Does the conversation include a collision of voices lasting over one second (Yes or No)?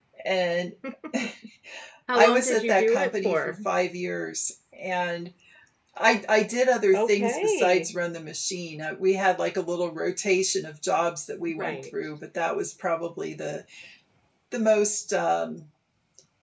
Yes